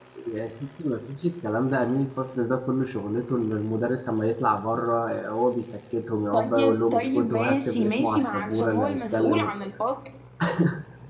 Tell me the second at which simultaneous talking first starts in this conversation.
6 s

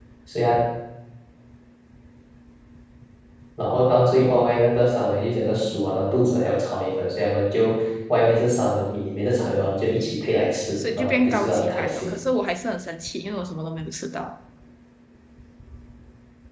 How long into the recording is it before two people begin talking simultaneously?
11 s

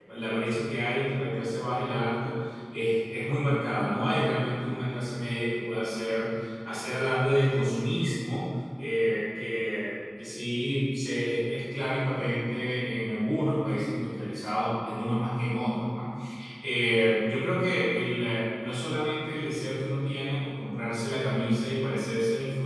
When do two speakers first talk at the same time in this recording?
none

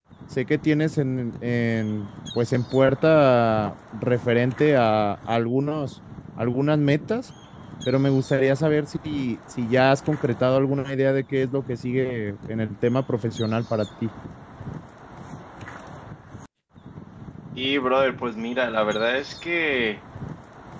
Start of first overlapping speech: none

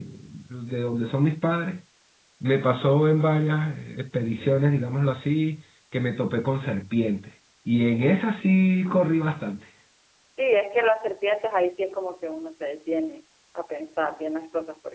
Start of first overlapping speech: none

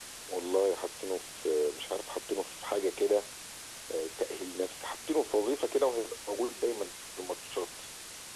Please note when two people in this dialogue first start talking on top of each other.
none

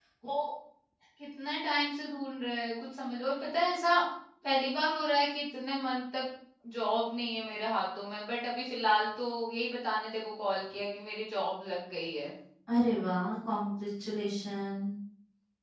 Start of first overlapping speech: none

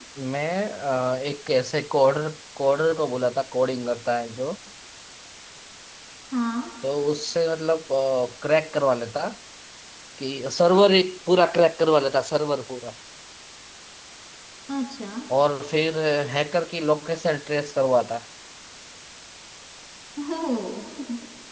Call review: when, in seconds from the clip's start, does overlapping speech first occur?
none

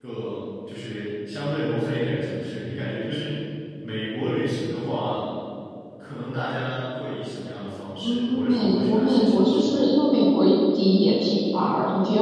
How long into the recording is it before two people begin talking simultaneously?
8 s

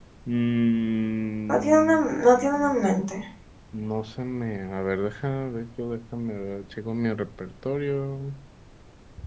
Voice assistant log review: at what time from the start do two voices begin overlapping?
1 s

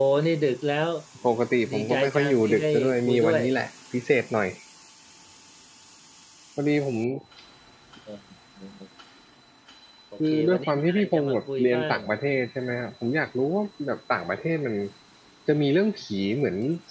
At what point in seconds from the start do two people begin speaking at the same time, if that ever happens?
2 s

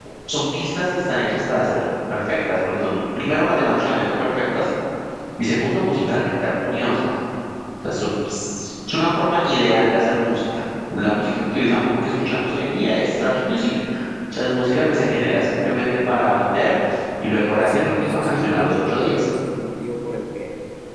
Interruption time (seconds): 18 s

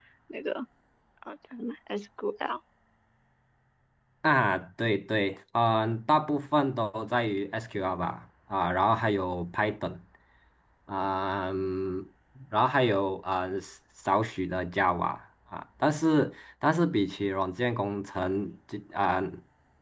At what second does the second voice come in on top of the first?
none

